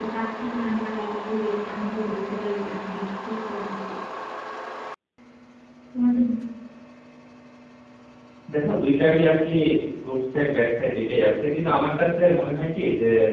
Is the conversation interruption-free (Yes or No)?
Yes